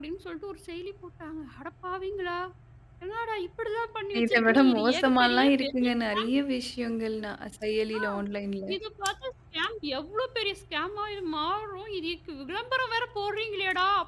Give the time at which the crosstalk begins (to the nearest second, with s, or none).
4 s